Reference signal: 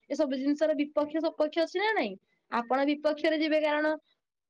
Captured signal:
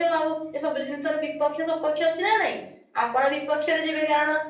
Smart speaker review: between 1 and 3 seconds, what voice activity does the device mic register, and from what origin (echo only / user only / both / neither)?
echo only